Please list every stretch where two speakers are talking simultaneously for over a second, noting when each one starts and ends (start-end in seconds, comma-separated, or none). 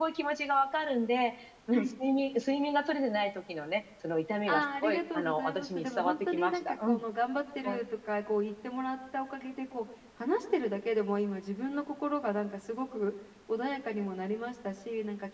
4.5-7.0